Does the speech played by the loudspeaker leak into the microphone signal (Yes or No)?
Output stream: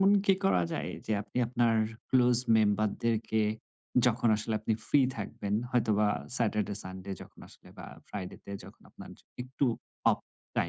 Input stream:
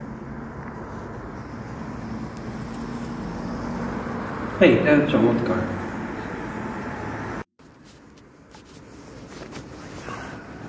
No